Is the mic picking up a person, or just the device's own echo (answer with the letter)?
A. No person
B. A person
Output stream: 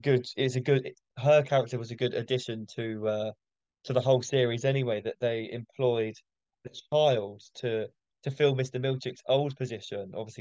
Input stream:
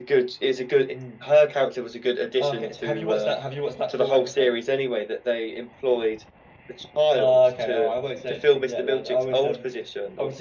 B